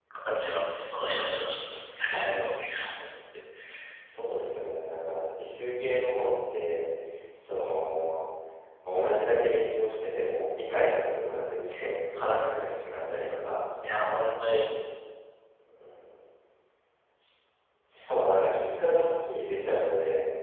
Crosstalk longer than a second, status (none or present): none